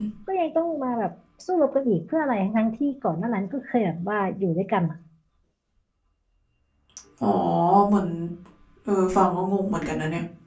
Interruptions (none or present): none